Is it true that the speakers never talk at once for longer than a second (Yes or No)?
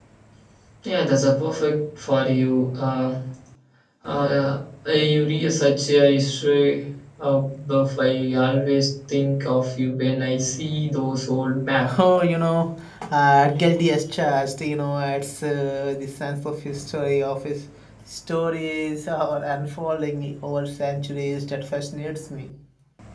Yes